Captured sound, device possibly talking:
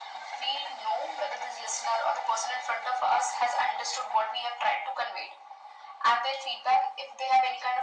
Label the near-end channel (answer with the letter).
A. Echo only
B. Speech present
A